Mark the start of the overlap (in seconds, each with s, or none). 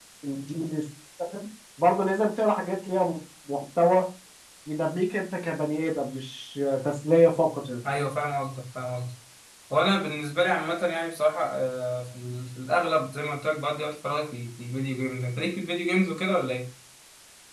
none